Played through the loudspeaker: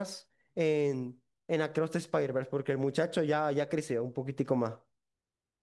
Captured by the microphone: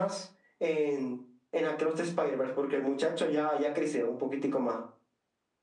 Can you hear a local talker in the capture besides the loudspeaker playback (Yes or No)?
No